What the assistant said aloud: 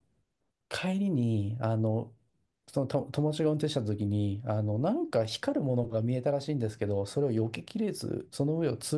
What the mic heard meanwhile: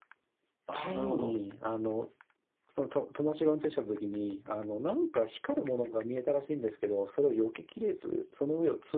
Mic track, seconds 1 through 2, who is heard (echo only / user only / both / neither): both